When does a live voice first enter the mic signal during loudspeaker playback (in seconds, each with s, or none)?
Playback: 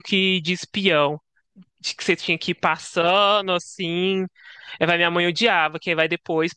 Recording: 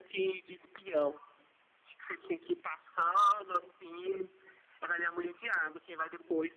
none